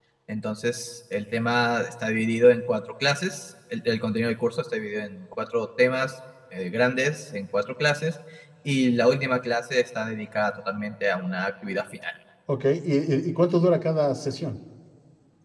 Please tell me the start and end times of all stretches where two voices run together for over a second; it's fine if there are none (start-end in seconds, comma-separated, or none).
none